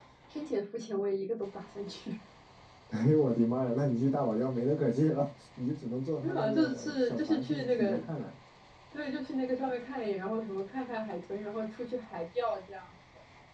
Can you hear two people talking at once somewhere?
Yes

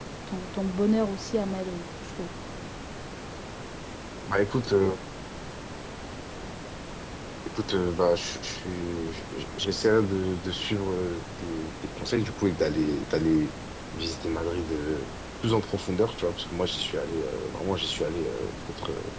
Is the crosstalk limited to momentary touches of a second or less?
Yes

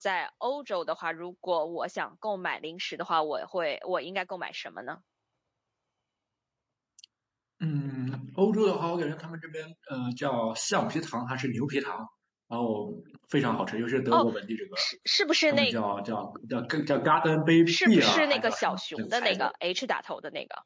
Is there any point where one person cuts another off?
Yes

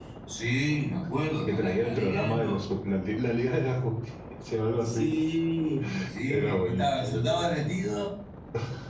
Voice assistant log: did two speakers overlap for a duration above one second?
Yes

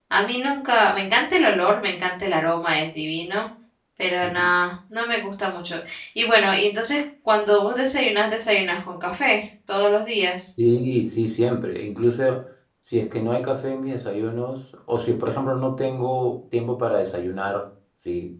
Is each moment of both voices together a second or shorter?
Yes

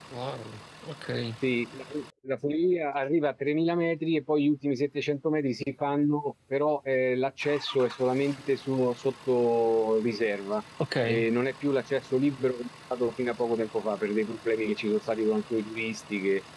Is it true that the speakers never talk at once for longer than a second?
Yes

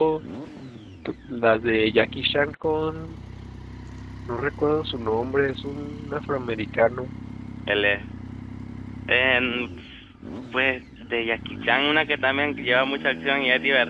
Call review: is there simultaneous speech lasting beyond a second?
No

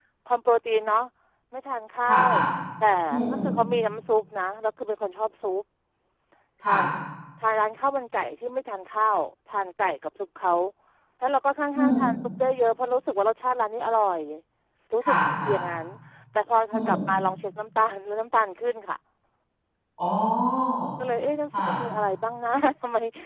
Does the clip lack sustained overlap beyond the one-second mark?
Yes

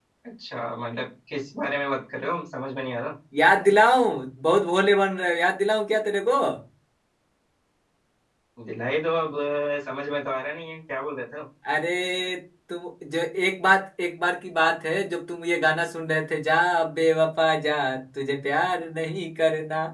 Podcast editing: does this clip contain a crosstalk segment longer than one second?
No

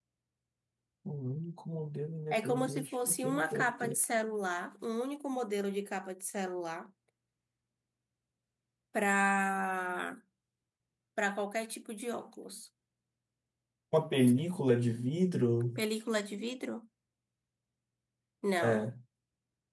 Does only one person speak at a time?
No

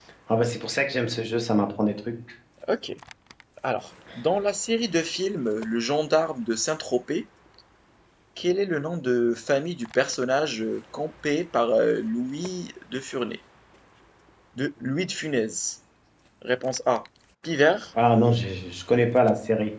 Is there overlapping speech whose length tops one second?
No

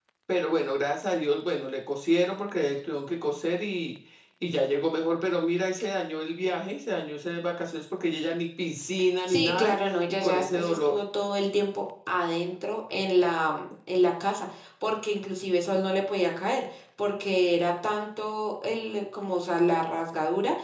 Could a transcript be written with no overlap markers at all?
No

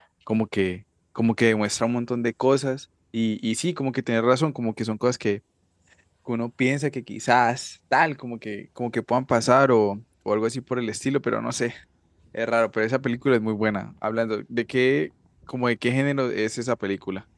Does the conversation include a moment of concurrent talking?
No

